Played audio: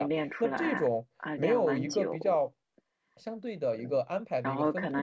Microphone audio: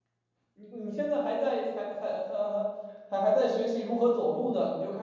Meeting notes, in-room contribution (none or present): present